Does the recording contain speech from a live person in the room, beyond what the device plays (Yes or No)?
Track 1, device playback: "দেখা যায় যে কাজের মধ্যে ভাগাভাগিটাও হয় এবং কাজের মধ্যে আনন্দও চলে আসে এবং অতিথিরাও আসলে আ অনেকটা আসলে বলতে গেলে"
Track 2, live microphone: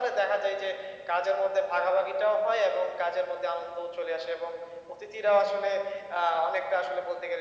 No